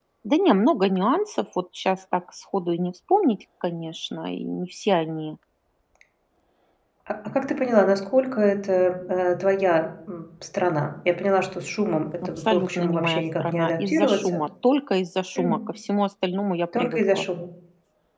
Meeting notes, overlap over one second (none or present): present